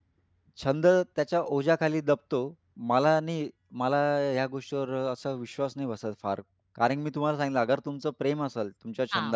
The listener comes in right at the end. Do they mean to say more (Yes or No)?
No